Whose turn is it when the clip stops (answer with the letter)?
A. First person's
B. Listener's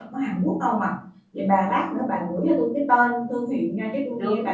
B